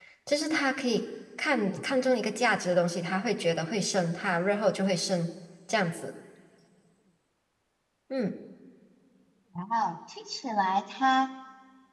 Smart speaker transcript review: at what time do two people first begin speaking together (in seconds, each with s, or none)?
none